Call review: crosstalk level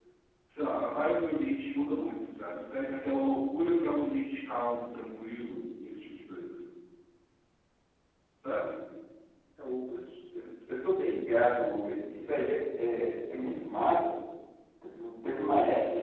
none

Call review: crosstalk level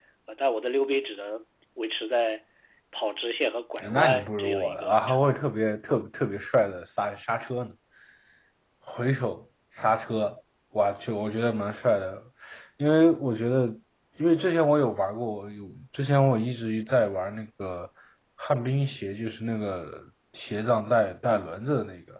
present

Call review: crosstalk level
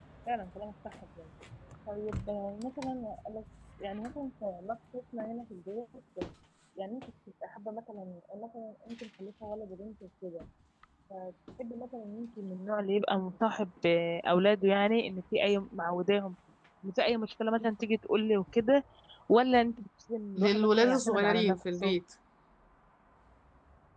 present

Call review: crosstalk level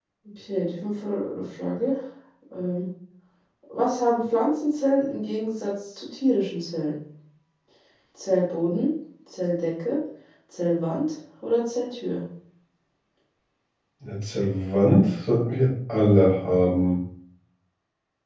none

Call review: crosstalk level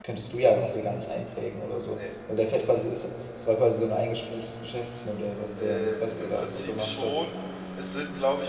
present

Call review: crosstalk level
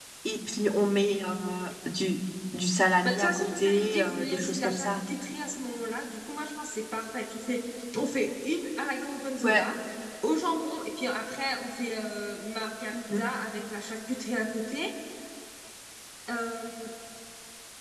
present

